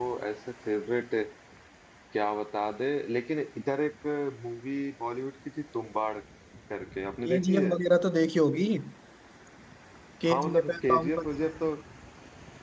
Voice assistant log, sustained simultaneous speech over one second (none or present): present